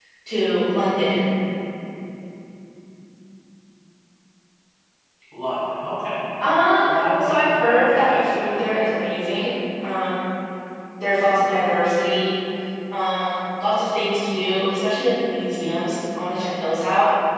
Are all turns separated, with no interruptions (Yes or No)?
No